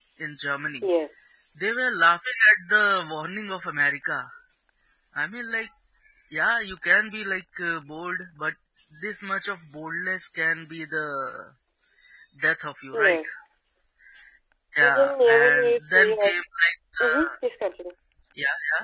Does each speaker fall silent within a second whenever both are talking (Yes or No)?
No